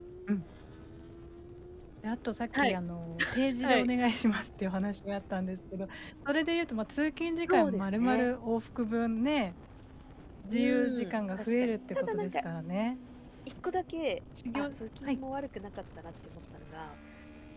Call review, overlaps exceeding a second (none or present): present